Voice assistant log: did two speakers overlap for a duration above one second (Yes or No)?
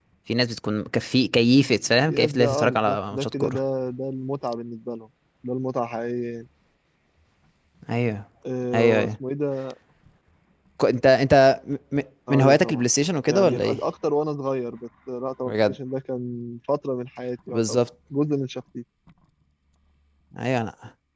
Yes